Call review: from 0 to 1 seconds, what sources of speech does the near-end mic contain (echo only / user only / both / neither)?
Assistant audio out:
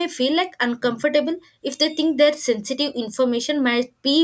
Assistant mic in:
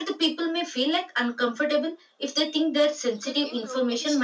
echo only